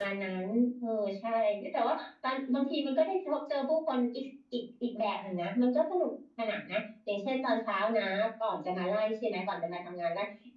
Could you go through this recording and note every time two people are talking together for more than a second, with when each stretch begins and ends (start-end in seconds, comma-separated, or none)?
none